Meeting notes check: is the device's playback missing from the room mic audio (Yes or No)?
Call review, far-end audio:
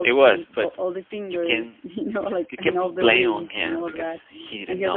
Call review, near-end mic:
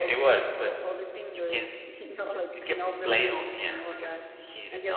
No